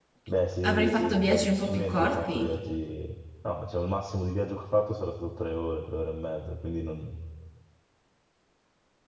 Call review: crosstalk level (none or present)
present